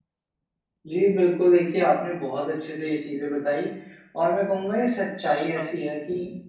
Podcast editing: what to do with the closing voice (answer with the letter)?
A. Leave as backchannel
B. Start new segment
A